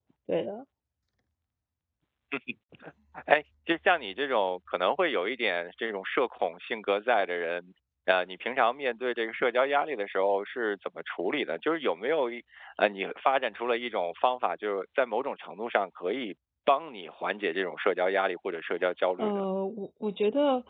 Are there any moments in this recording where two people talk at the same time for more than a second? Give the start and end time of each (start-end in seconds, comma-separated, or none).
none